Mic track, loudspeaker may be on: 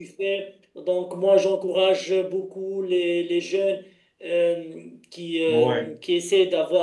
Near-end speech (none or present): present